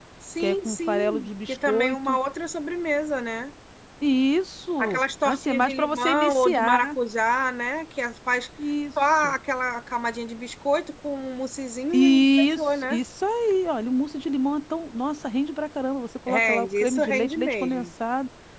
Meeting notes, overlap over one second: present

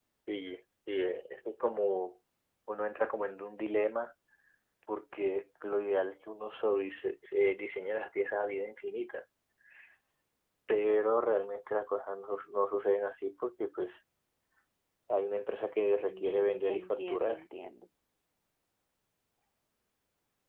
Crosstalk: present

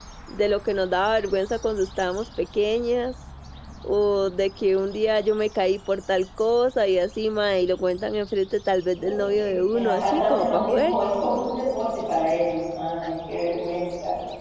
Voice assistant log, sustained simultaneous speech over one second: present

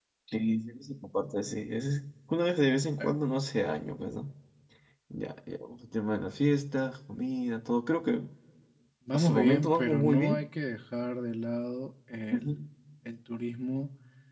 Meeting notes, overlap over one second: present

